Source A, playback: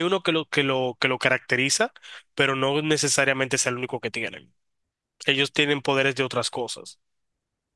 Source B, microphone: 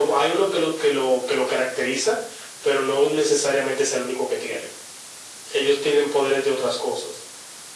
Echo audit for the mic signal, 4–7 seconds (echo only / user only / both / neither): echo only